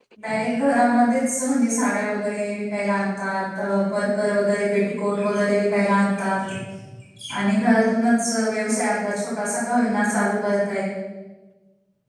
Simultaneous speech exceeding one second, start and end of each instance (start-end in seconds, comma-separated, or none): none